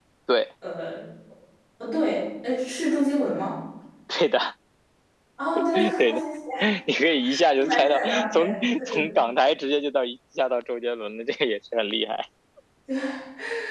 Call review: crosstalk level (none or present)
present